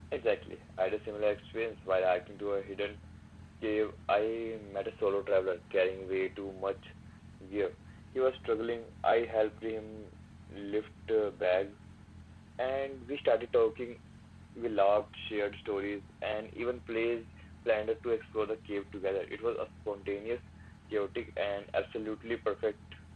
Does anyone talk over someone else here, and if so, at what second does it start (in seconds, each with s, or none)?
none